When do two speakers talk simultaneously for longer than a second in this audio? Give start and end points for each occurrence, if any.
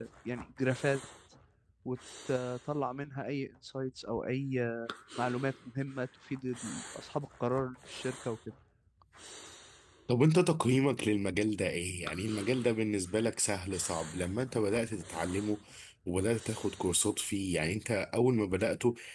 none

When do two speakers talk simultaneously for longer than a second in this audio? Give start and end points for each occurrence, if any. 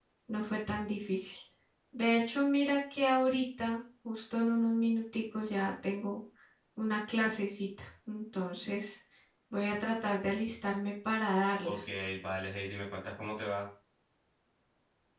none

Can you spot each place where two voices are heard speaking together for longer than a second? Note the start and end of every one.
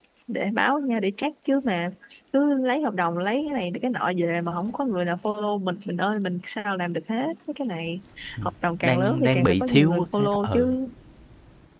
8.8-10.6

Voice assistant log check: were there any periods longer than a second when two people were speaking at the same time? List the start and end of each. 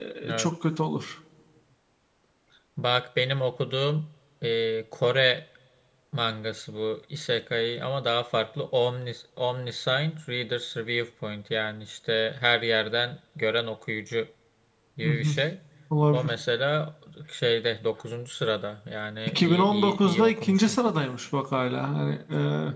19.3-20.8

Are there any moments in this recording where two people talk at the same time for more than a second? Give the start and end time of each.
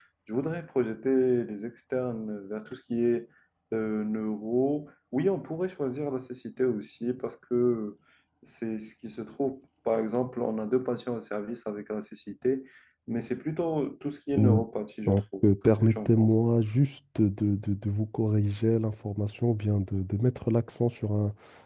15.1-16.3

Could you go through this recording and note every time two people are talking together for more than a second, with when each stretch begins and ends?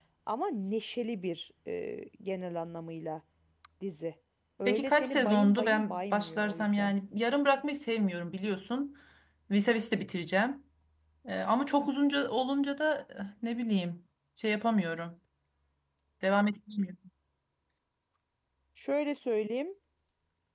4.6-6.9

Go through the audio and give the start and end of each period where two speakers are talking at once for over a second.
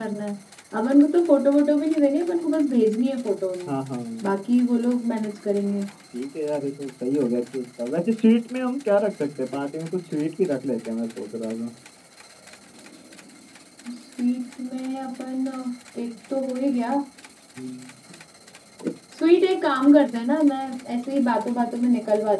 none

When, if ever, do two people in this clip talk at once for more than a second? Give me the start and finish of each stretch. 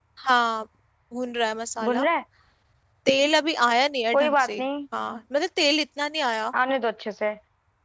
none

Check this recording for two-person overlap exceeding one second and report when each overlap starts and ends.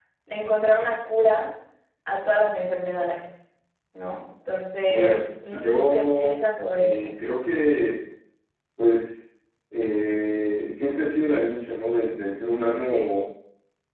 4.9-6.4

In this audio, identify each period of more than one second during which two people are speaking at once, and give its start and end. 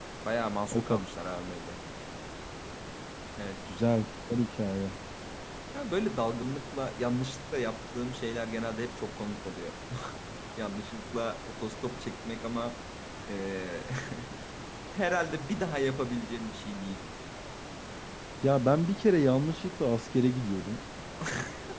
none

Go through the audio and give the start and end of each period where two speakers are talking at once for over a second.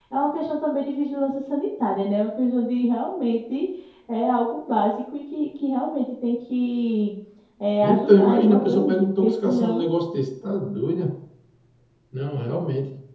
7.8-9.9

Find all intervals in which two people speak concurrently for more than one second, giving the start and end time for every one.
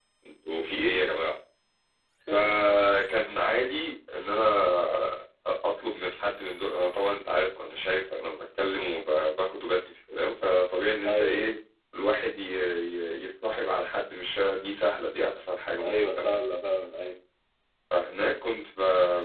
none

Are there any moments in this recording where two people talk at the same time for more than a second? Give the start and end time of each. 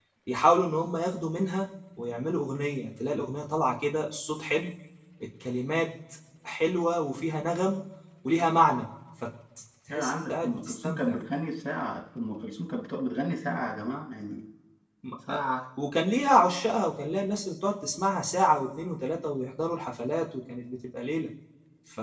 9.9-11.2

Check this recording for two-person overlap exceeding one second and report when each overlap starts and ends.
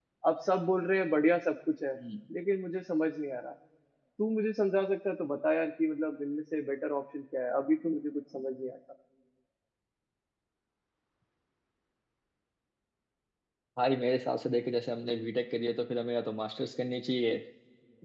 none

